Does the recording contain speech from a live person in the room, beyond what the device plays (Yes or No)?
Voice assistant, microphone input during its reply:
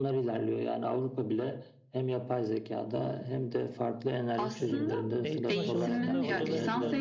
Yes